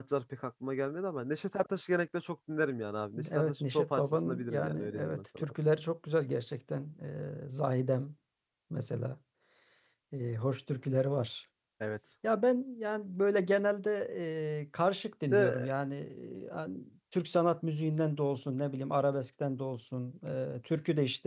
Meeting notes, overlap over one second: present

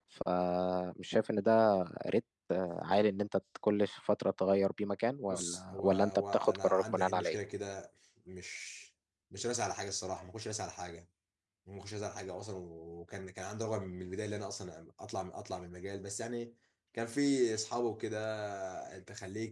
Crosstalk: present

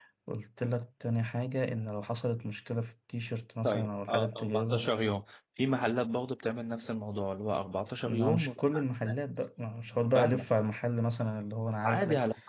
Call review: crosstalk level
present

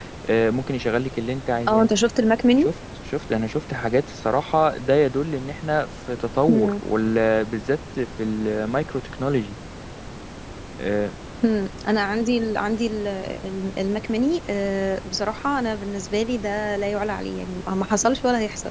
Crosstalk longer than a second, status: none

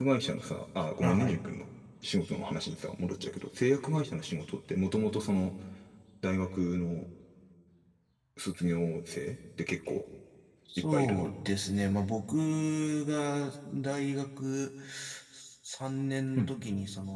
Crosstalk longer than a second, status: none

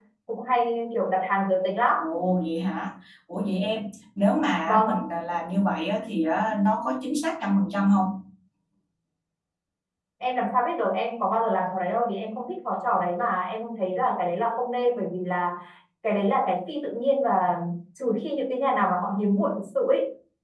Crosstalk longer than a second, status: none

